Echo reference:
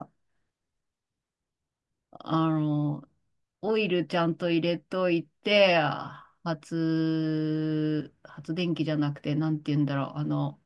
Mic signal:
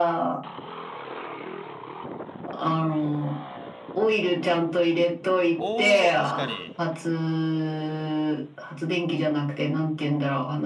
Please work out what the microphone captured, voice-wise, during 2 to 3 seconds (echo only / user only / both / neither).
echo only